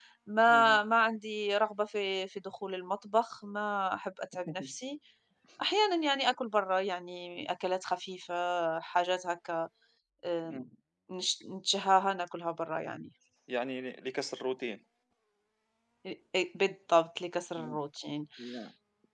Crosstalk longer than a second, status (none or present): none